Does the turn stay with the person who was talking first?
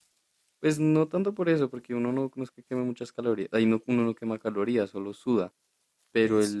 Yes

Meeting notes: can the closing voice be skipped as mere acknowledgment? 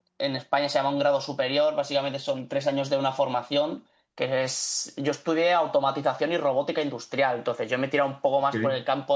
Yes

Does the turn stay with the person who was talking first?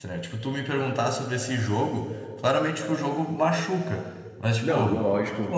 Yes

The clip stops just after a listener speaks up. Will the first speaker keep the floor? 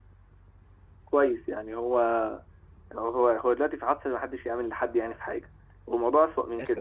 Yes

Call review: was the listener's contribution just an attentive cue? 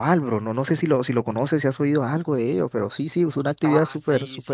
No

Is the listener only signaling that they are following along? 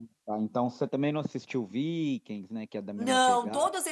No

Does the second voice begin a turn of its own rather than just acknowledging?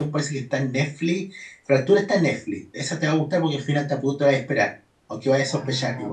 Yes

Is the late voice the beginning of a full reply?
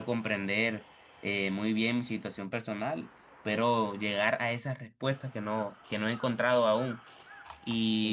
No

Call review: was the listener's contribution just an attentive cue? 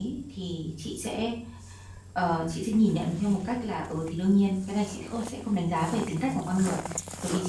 Yes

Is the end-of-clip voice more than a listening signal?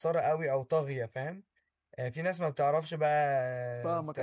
No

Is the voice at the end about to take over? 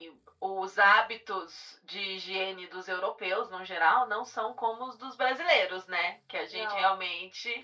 No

